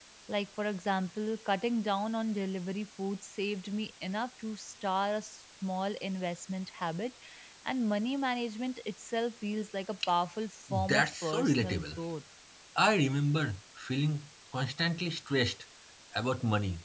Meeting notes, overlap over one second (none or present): present